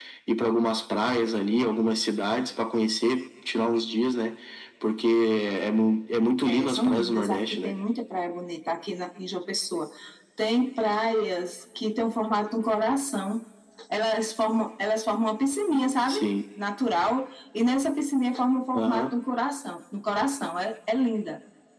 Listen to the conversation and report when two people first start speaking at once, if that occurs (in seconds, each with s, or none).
6.4 s